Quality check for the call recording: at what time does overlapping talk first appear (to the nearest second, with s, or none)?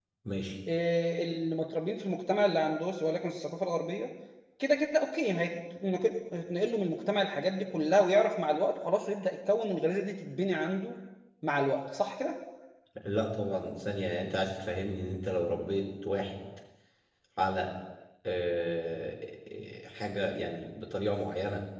none